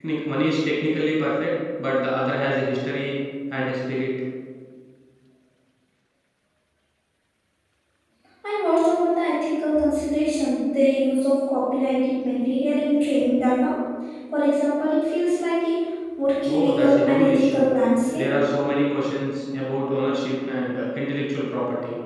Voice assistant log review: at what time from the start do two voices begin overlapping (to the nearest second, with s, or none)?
16 s